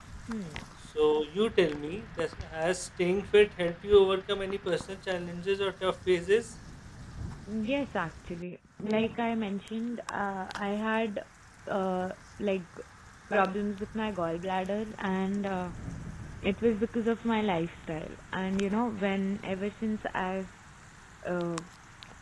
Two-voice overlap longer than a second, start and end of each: none

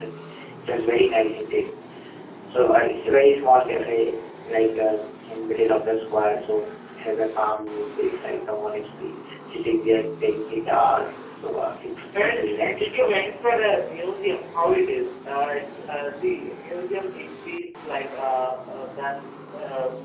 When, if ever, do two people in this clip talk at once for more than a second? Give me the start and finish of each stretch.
12.1-13.4

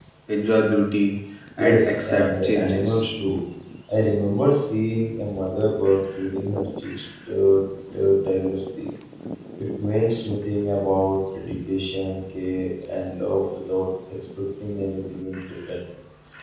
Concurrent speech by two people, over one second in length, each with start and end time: 1.6-3.0

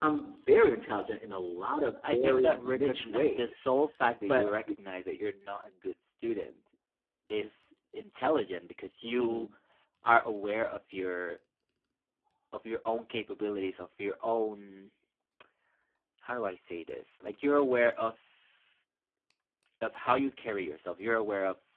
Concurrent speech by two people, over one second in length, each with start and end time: 2.0-3.7

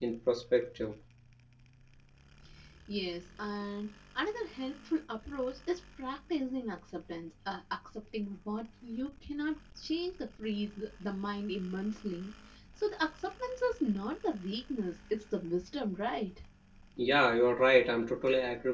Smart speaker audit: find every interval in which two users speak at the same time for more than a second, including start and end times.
none

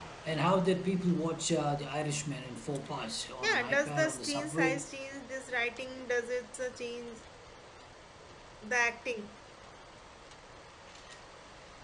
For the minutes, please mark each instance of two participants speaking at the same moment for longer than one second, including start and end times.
3.4-4.9

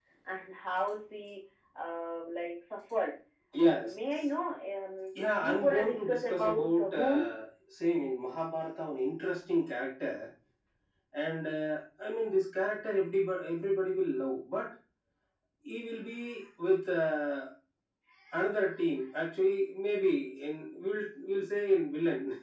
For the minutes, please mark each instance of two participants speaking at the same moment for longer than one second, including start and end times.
5.4-7.3

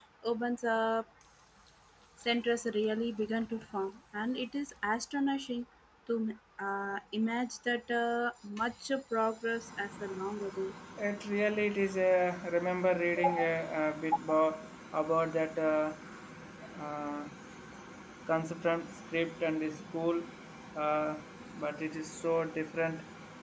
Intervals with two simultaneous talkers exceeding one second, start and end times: none

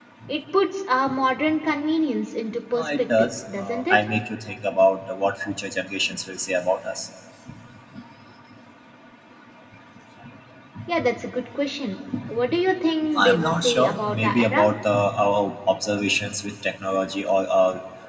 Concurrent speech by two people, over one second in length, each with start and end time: 2.7-4.0, 13.2-14.7

